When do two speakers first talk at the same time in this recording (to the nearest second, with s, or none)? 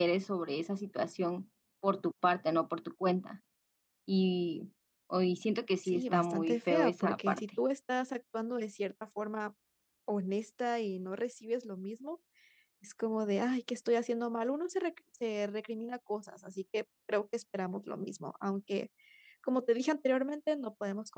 6 s